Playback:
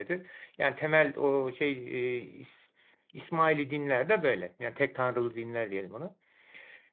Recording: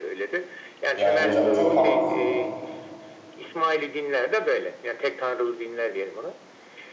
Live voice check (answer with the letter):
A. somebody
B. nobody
A